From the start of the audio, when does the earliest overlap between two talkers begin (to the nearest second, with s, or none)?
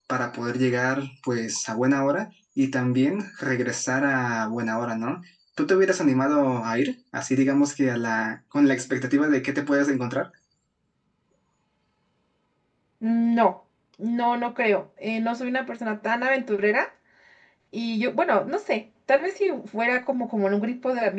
none